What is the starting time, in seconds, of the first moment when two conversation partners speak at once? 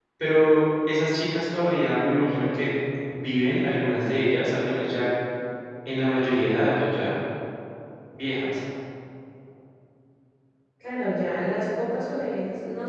none

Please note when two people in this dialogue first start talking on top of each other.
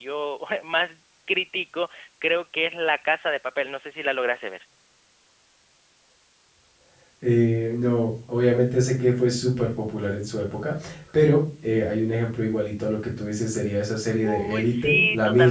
14.2 s

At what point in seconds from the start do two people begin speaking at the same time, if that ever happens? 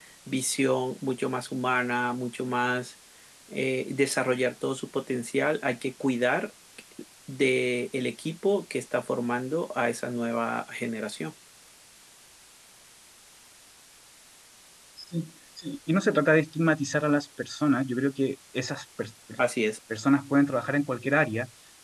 none

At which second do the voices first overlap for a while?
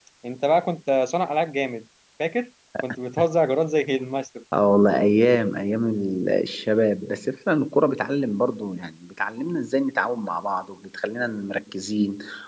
none

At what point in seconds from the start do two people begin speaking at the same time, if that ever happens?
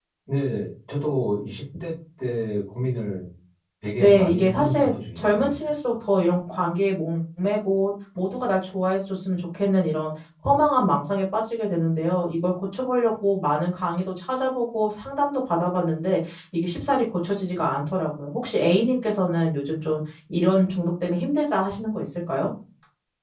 4.0 s

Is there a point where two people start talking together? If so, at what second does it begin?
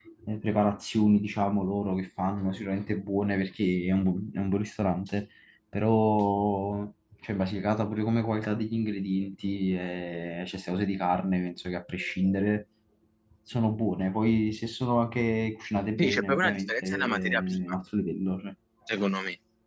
16.0 s

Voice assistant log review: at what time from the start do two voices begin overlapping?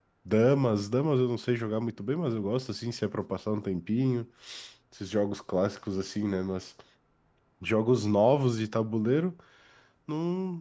none

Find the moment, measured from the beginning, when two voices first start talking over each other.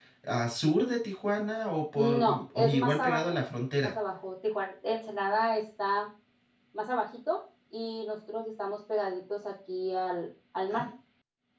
1.9 s

